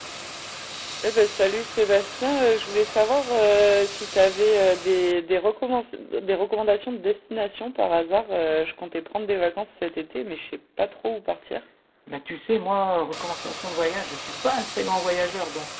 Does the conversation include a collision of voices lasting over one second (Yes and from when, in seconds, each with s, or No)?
No